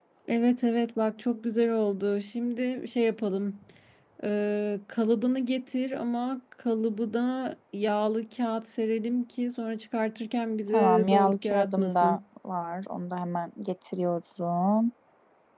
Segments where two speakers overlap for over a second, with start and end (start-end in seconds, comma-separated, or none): 10.7-12.2